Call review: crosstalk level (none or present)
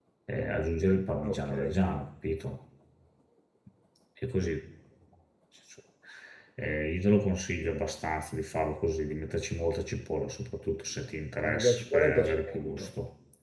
present